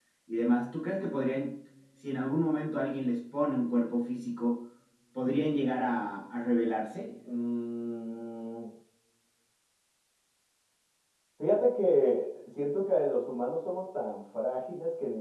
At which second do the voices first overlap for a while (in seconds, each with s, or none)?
none